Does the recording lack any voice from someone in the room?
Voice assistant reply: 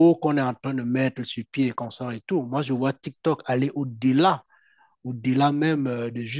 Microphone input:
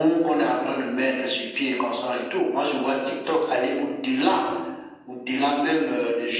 Yes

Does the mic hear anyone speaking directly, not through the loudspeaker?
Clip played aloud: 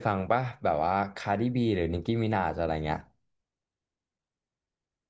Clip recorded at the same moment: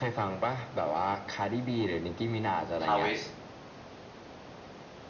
Yes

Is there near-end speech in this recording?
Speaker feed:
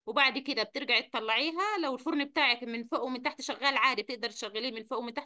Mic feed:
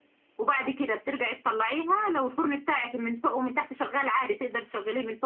No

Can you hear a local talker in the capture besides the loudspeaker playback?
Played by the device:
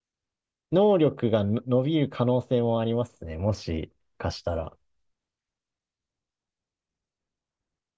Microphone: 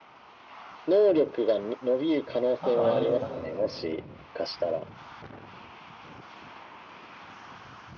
Yes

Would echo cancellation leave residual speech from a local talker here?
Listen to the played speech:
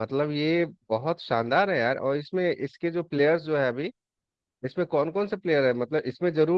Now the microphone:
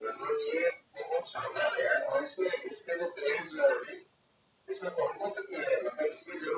No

